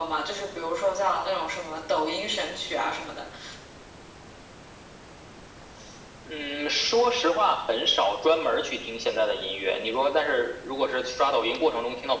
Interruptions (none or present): none